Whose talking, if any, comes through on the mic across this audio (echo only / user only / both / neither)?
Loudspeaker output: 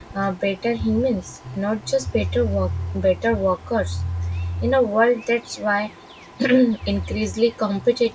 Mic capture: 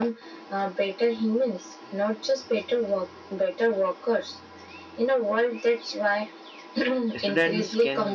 both